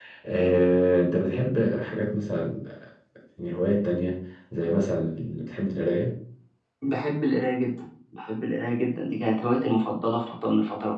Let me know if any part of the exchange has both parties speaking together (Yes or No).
No